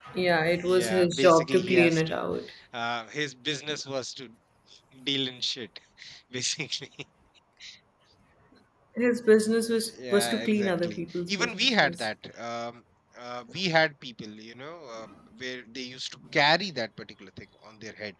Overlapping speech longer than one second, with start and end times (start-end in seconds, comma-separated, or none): 0.6-2.2, 10.1-12.0